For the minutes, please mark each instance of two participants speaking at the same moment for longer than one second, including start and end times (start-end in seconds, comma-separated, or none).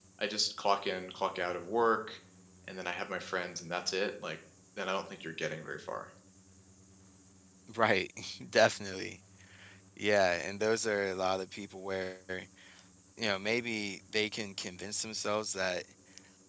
none